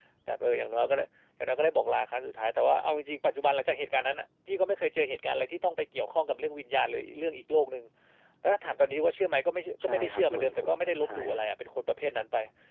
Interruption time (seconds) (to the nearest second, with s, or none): 10 s